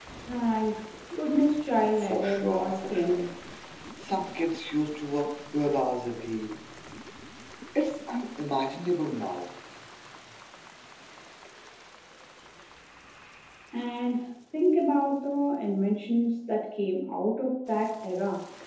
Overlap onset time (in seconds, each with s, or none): 1.9 s